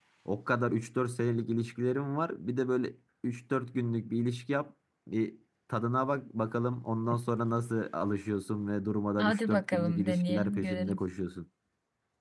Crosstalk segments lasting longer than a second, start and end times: 9.2-11.0

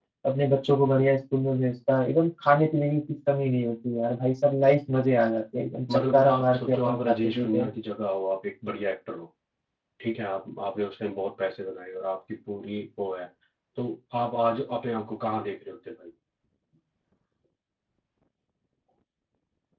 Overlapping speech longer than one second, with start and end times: 5.9-7.7

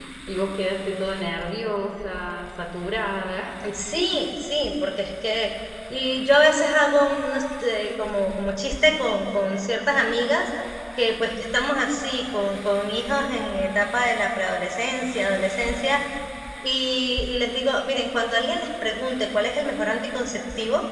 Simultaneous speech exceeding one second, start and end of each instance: none

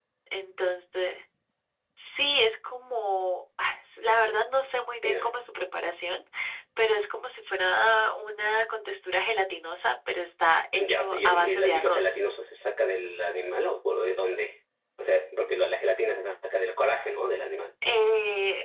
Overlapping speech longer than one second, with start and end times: 10.8-12.2

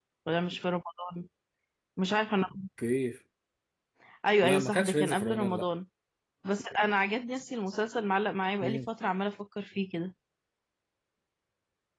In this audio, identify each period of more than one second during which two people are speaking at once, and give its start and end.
4.4-5.7

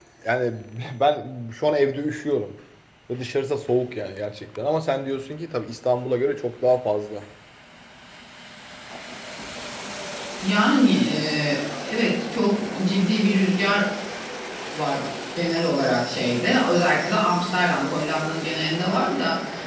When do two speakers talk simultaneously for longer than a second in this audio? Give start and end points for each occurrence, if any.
none

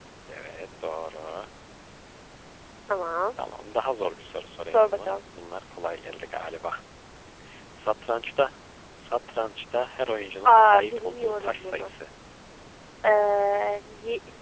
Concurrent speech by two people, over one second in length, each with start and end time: 10.4-11.9

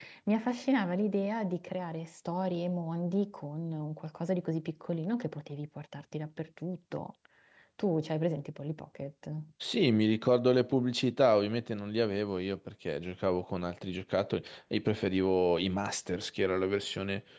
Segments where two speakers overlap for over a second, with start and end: none

